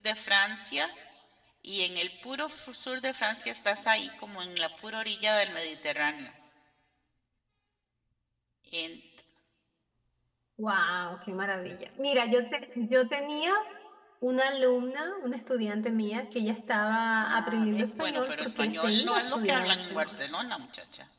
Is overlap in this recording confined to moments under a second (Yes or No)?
No